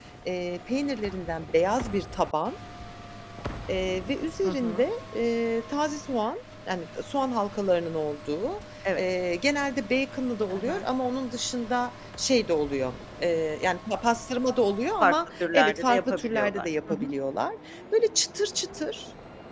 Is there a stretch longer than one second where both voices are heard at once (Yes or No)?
Yes